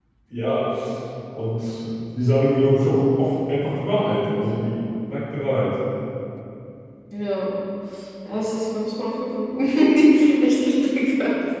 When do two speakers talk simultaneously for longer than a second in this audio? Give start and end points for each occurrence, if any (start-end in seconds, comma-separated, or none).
none